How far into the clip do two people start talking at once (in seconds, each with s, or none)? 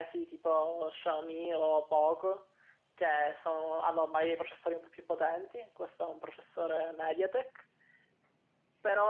none